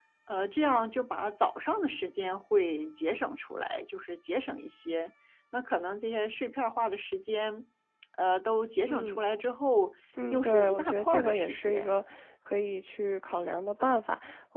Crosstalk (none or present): present